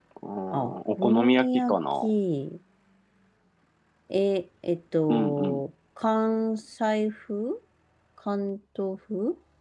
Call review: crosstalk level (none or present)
present